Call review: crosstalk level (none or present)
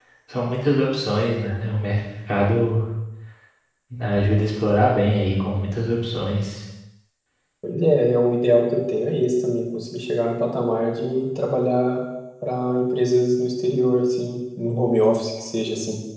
none